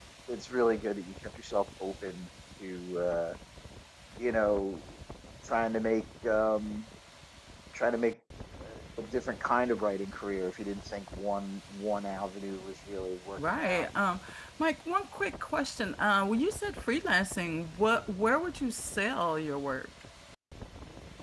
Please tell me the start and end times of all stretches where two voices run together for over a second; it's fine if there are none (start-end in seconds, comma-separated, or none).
none